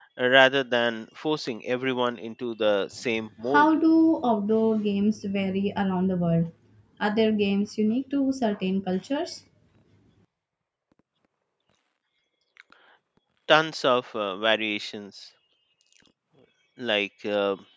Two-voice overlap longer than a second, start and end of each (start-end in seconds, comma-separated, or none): none